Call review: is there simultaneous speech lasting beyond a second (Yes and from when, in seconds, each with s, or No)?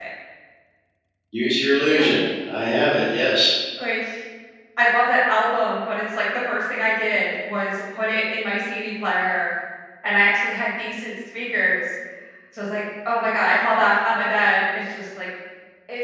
No